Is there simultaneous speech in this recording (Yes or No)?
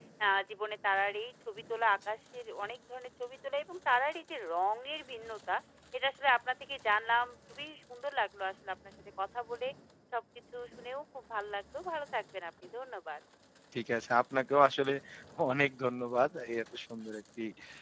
No